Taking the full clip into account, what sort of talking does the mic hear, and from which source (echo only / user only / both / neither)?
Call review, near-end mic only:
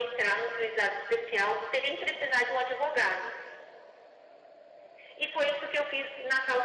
echo only